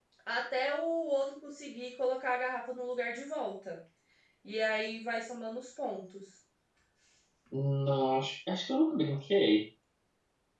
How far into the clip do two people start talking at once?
none

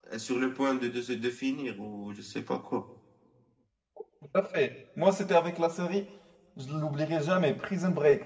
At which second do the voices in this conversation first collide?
none

